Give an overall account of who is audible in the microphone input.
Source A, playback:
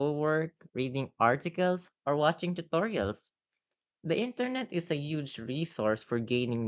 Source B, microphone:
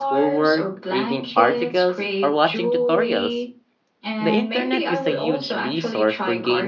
both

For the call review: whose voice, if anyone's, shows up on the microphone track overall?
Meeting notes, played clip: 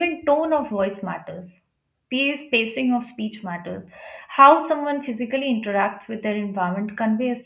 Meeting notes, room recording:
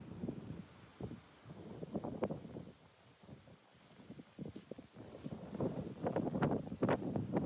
neither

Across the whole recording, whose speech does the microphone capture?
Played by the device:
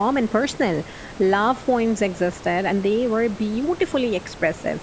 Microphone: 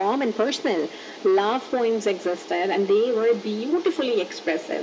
echo only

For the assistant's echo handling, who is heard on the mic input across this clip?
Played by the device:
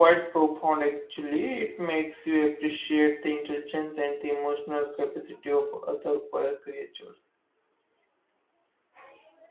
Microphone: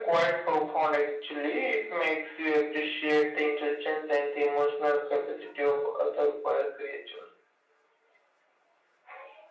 echo only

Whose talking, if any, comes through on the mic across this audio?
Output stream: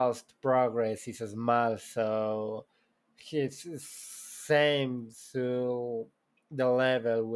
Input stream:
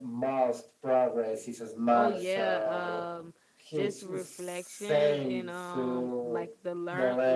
both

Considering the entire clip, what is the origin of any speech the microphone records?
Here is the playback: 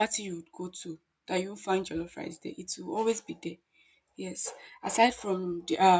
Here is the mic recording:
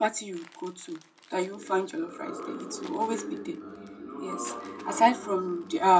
both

